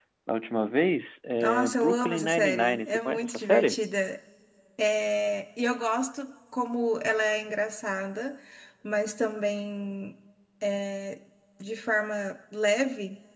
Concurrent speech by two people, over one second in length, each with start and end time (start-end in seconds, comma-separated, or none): 1.4-3.8